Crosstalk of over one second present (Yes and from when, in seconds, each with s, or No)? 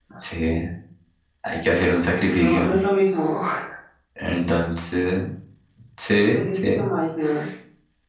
No